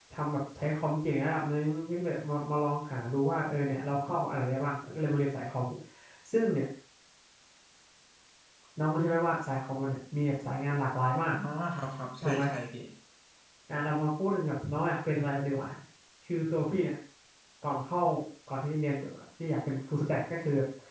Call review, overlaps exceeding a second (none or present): none